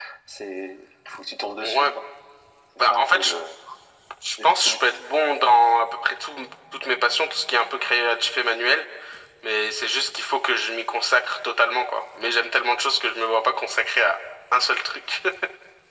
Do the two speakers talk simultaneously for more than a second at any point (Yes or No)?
No